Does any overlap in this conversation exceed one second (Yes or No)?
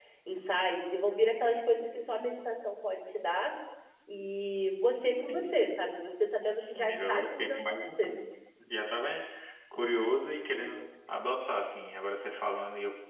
Yes